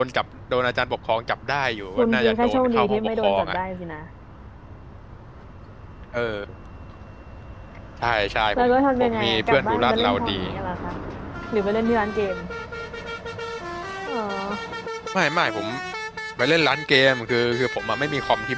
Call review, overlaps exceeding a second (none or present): present